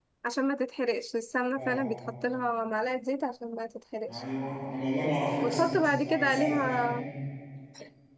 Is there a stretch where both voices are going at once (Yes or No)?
Yes